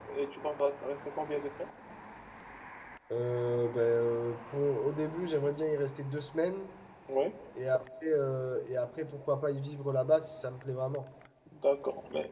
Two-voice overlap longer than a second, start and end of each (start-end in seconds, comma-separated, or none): none